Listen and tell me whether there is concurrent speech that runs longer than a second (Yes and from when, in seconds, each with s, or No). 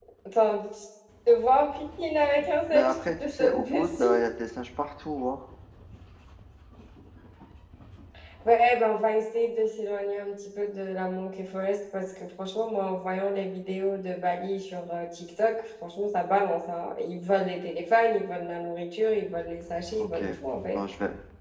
Yes, from 2.7 s